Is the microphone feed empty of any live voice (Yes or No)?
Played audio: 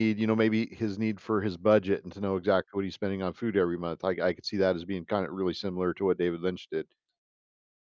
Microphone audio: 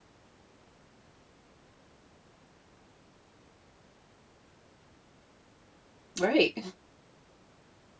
No